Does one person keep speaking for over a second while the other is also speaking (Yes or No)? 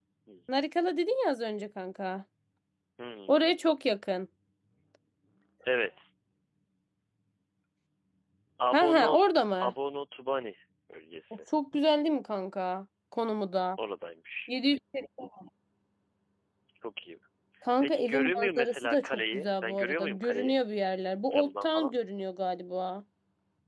Yes